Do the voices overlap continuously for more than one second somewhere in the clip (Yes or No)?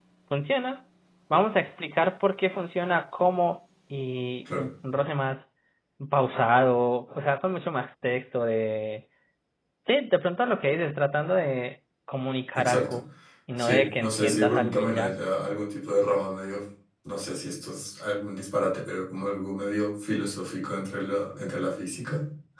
Yes